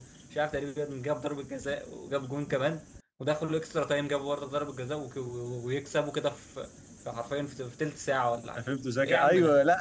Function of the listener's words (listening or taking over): taking over